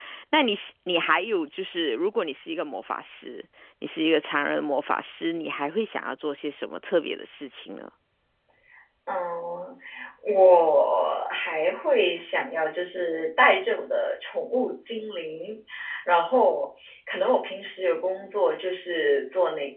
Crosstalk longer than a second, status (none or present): none